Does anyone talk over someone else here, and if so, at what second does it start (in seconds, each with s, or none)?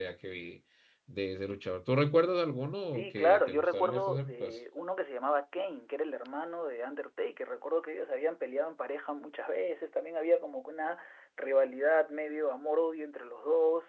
2.9 s